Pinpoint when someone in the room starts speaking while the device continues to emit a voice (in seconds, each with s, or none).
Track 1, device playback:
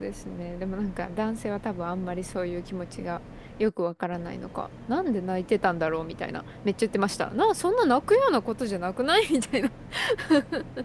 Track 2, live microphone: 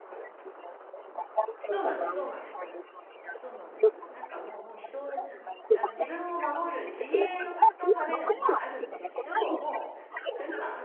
1.7 s